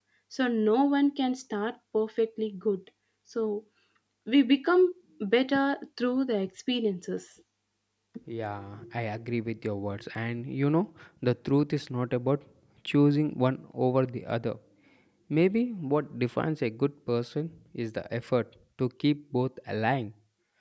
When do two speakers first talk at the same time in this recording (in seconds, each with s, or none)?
none